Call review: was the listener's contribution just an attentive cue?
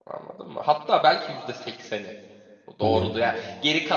Yes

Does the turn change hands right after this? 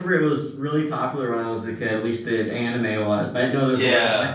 Yes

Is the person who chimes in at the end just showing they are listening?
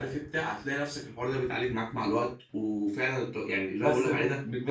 No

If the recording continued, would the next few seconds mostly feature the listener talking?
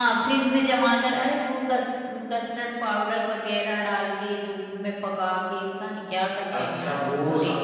Yes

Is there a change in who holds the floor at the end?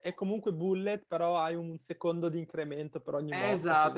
Yes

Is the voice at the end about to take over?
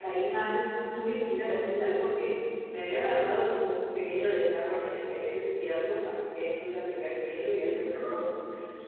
No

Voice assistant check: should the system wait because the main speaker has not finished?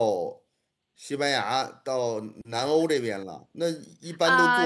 No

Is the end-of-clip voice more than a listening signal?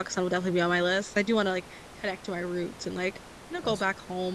No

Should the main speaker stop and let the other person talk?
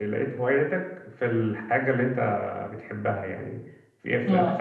No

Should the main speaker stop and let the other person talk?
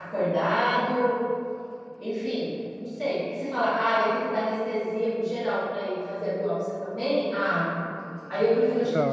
Yes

